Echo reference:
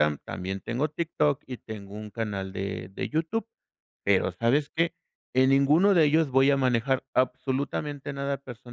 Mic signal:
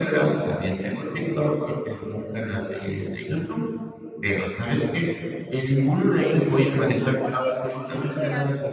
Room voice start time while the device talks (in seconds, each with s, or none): 7.2 s